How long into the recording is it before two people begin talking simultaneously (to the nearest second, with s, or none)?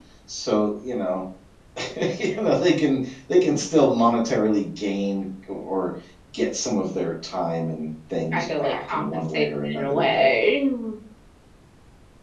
8 s